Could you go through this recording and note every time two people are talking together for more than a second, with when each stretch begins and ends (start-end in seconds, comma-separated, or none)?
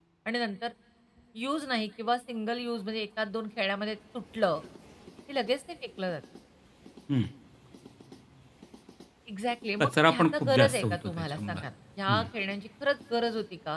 9.8-11.6